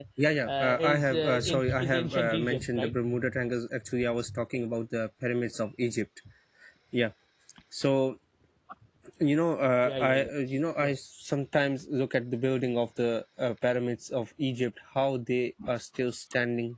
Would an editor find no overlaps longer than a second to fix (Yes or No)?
No